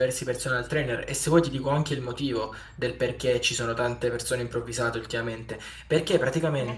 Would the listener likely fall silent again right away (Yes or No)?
Yes